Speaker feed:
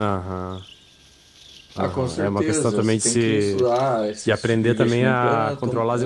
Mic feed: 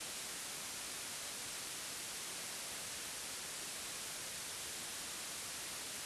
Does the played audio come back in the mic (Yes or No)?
No